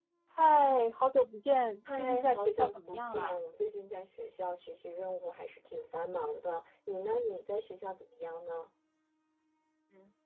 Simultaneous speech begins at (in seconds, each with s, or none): 1.9 s